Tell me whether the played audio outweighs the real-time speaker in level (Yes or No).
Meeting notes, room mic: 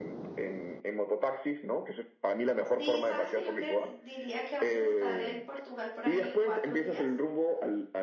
Yes